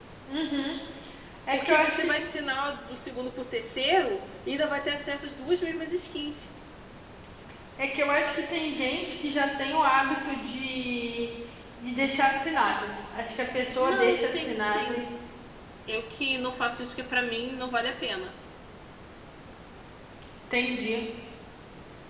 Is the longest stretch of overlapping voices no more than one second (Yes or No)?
No